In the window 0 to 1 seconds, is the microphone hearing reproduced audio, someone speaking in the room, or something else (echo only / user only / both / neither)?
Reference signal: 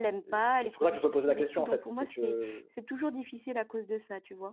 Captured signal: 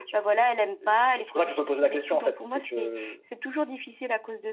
echo only